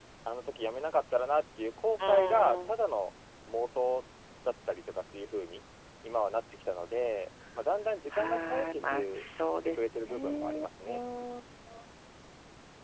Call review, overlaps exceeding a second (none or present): present